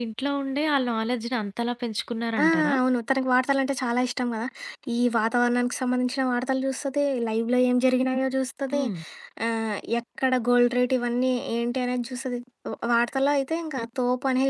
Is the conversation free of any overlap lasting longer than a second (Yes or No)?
Yes